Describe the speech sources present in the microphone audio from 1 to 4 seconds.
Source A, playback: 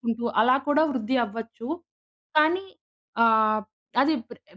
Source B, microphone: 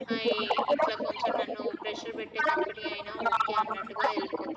both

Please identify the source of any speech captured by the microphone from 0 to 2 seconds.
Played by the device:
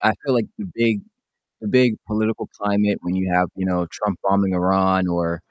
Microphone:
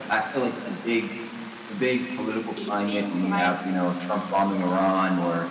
echo only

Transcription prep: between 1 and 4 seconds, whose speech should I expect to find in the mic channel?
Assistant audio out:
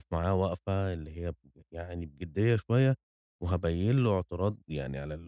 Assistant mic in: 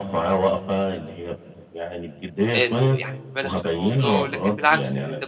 both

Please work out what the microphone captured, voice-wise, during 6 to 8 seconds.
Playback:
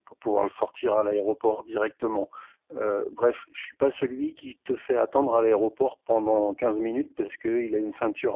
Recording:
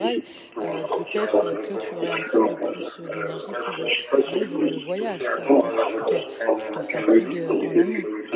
both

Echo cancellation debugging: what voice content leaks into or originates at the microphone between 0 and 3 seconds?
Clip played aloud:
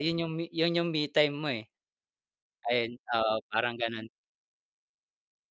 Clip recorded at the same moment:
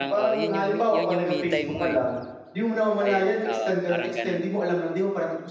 both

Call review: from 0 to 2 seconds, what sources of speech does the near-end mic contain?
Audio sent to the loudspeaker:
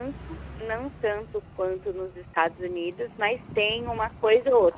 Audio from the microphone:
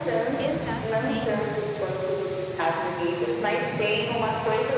both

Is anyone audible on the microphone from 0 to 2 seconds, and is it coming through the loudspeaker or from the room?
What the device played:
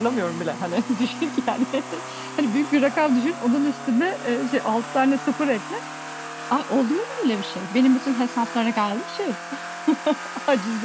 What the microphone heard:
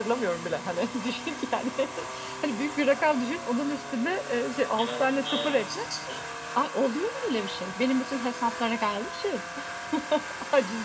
echo only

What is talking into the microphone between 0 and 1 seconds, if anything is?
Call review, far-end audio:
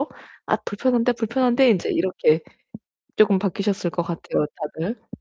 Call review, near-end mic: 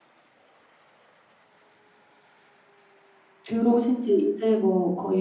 neither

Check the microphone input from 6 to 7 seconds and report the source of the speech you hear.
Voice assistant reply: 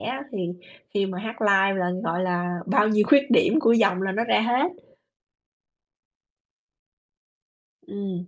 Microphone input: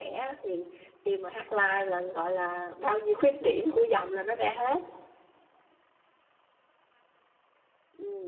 neither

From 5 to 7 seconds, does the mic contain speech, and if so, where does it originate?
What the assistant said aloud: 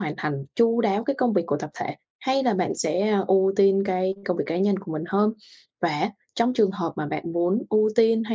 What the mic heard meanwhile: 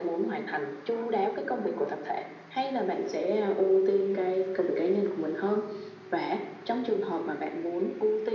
echo only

